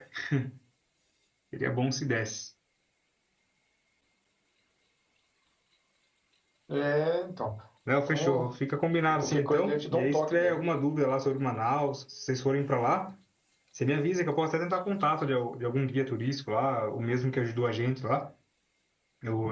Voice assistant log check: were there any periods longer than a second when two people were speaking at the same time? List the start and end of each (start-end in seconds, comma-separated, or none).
9.1-10.6